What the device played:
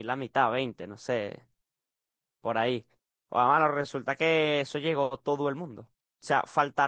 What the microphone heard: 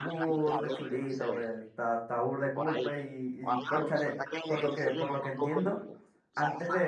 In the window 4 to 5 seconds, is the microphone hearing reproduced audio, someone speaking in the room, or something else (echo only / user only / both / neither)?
both